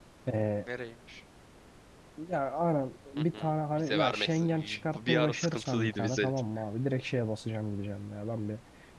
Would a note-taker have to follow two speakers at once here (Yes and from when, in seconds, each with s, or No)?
Yes, from 3.3 s